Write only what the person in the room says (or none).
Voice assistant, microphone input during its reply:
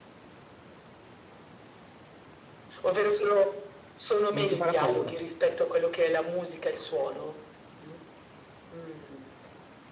non ti farà paura.